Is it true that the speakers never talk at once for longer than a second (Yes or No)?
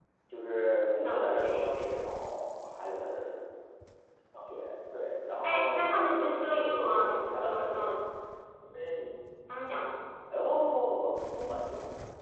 No